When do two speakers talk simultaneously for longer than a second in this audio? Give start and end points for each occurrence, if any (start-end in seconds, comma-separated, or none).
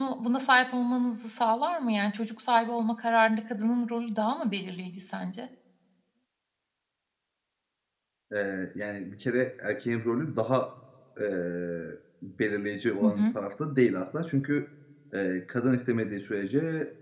none